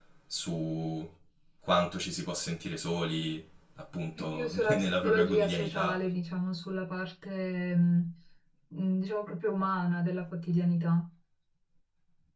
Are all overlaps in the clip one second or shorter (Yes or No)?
No